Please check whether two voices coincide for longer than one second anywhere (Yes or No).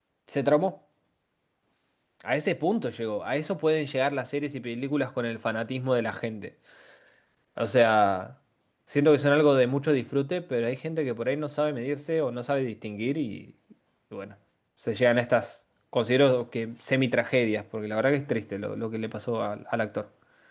No